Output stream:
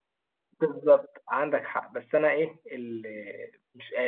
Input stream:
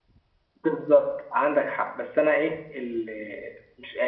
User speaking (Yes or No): No